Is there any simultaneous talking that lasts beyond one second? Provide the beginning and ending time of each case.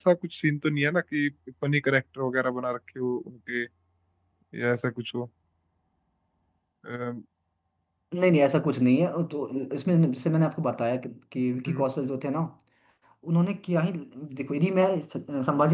none

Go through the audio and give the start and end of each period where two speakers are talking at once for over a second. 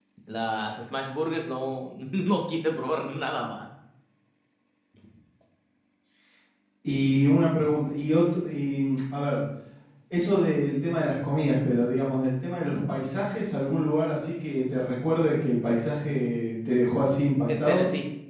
none

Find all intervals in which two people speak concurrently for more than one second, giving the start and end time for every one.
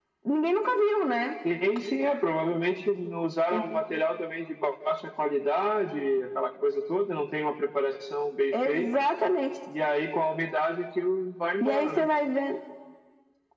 none

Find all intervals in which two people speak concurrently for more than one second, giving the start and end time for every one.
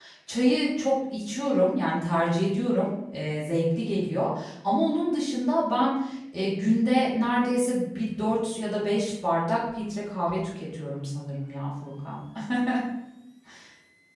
none

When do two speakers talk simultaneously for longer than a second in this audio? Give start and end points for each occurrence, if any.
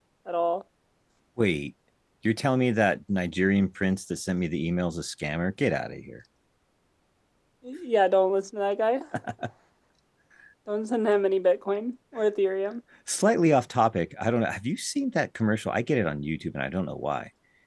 none

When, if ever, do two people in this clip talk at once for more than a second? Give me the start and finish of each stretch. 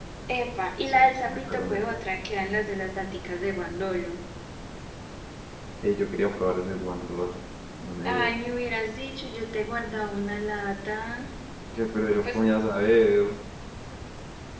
0.8-2.0

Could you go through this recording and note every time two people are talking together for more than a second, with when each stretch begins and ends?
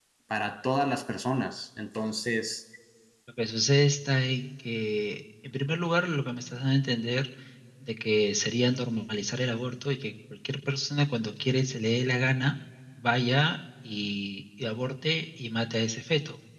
none

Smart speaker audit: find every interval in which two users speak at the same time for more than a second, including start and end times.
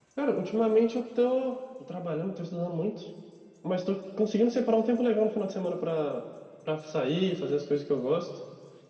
none

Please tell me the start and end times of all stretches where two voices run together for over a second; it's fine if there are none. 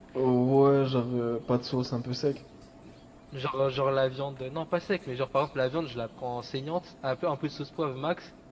none

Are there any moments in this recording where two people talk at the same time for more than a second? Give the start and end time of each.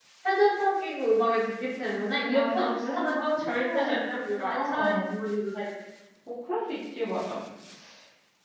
2.3-5.1

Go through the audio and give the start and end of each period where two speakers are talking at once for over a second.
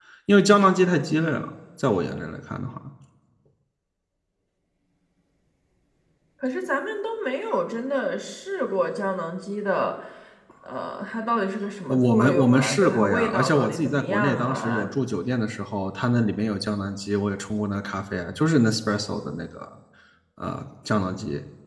11.9-14.8

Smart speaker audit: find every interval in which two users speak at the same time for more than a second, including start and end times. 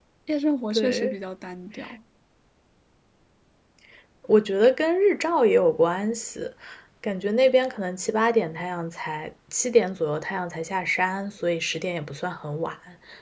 none

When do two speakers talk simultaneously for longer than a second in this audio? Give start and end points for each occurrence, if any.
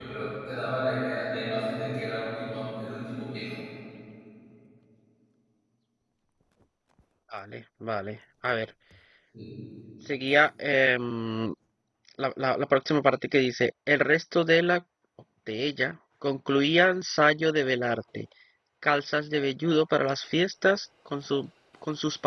none

